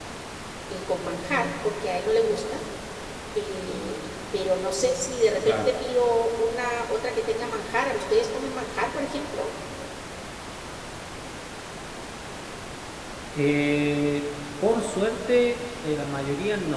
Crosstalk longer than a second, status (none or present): none